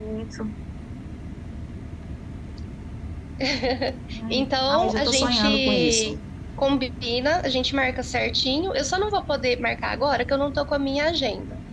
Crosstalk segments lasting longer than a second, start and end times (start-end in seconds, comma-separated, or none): 4.3-6.1